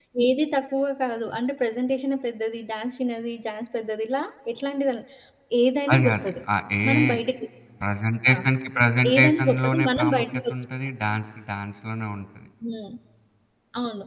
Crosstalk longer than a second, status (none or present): present